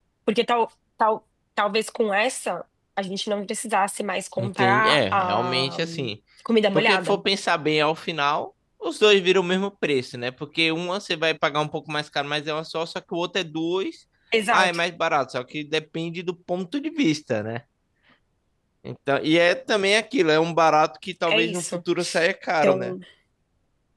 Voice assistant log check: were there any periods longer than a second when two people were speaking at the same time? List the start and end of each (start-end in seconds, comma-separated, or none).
4.4-6.1